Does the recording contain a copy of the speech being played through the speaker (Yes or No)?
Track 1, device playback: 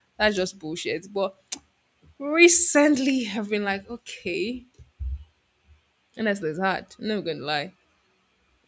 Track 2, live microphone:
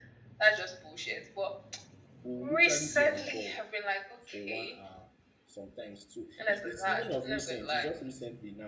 Yes